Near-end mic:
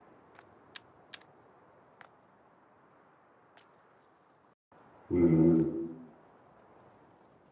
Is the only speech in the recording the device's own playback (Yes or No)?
No